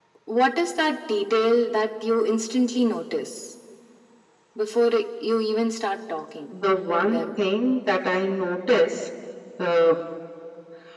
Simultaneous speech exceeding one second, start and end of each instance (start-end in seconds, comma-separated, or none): none